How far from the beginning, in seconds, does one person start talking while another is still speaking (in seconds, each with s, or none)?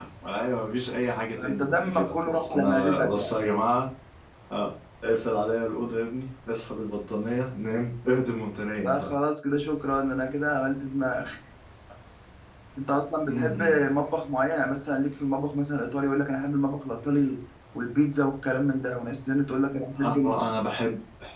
1.4 s